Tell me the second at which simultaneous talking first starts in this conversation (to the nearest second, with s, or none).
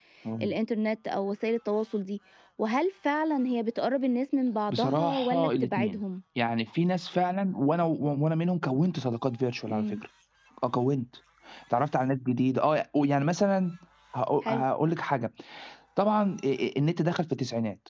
5 s